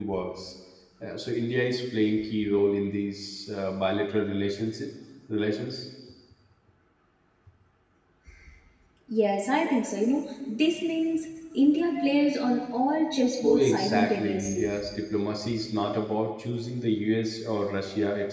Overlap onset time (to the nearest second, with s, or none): 13 s